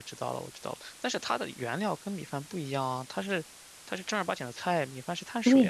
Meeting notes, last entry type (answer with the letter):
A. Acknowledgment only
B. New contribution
B